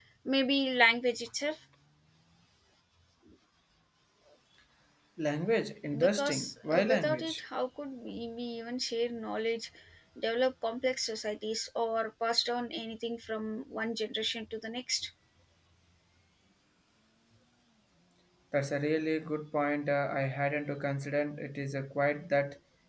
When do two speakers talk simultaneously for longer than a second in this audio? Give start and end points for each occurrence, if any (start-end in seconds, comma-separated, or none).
6.0-7.4